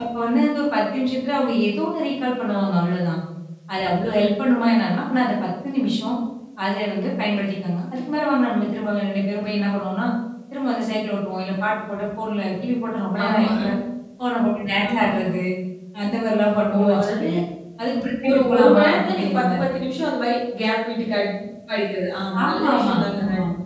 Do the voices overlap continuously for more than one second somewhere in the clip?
Yes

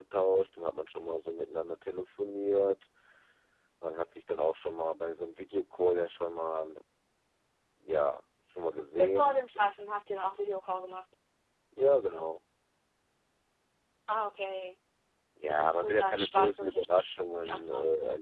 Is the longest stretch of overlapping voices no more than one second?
No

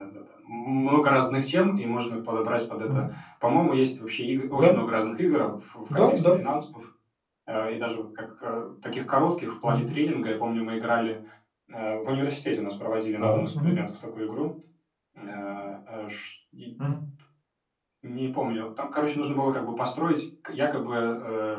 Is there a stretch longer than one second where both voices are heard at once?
No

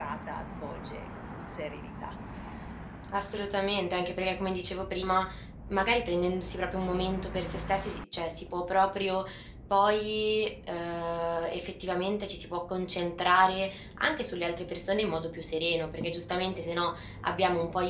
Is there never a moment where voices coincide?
Yes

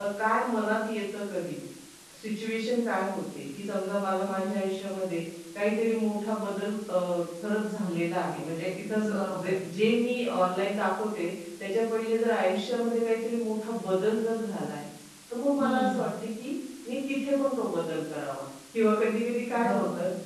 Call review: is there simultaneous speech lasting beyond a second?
No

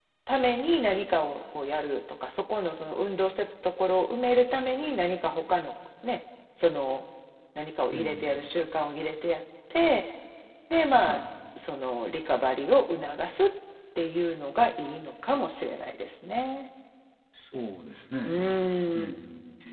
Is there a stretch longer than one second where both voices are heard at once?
No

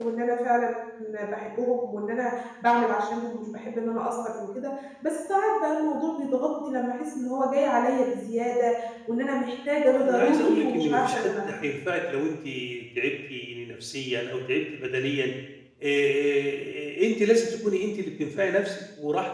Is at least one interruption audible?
Yes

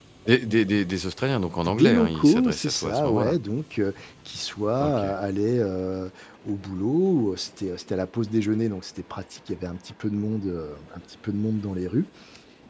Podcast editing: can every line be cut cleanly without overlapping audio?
No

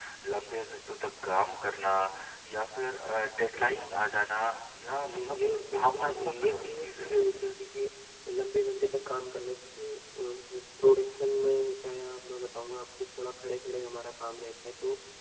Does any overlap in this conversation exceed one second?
Yes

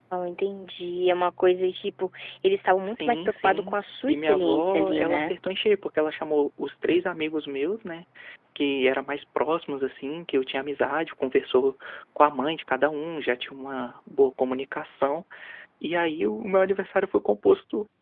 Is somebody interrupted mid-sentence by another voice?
Yes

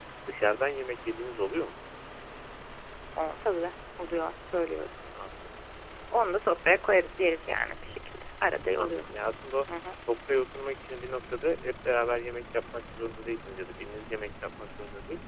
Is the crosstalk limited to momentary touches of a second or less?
Yes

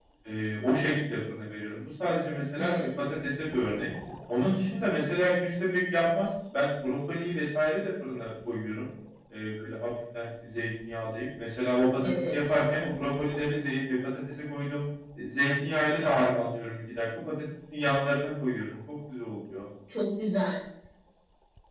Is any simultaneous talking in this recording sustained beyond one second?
No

